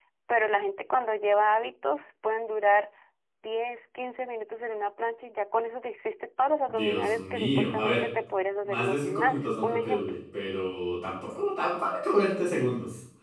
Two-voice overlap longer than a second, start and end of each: 6.7-8.1, 8.6-10.2

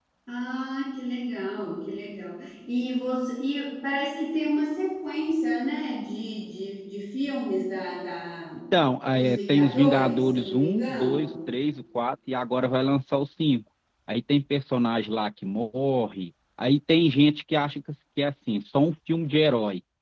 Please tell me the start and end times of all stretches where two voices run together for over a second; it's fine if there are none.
9.2-11.4

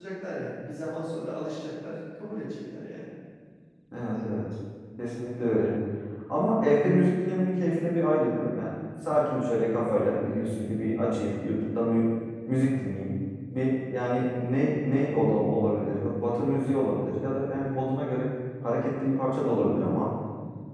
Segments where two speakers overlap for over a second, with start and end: none

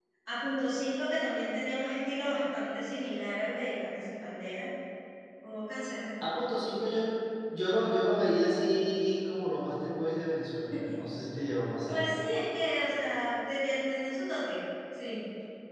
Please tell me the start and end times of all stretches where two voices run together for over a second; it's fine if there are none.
none

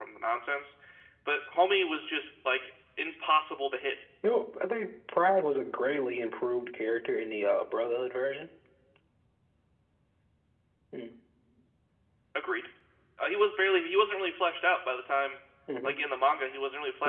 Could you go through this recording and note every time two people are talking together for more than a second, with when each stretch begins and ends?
none

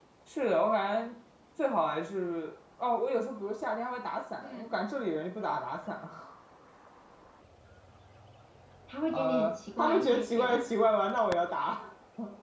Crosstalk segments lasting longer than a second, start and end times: 9.1-10.6

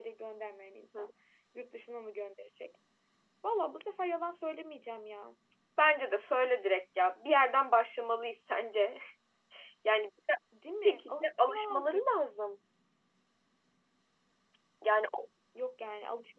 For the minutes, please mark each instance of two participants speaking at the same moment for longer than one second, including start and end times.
10.8-12.1

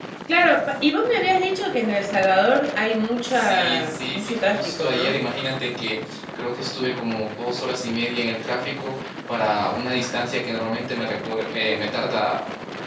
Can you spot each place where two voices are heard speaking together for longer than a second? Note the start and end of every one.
3.3-5.2

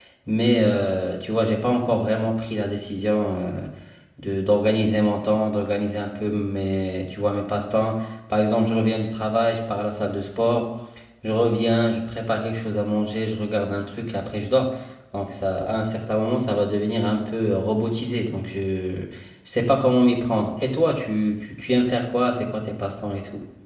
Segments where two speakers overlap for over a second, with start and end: none

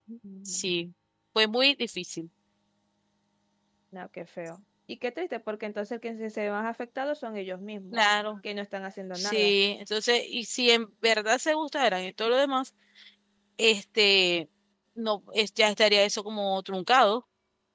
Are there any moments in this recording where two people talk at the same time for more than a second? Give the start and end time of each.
none

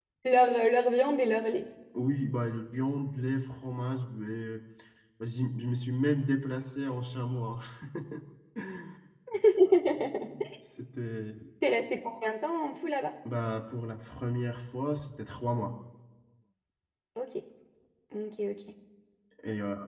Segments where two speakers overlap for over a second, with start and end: none

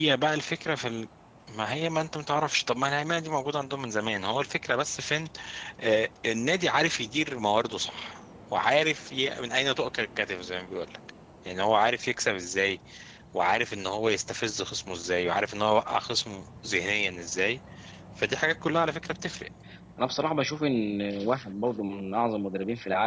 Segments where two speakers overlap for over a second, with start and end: none

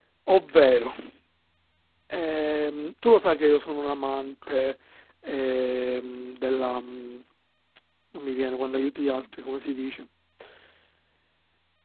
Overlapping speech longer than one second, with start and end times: none

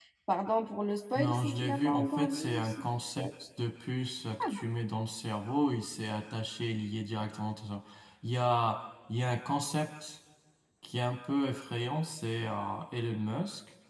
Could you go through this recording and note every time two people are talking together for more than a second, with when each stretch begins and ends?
1.1-2.8

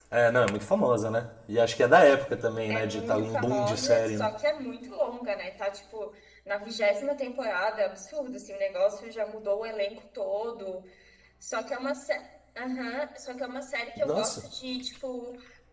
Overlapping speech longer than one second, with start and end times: 2.7-4.3

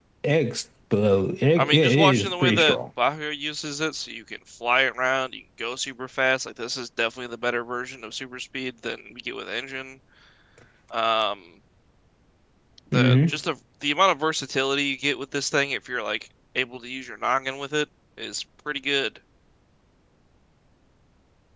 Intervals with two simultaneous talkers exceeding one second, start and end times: 1.6-2.8

